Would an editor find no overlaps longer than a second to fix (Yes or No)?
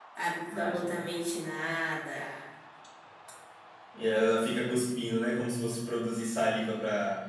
Yes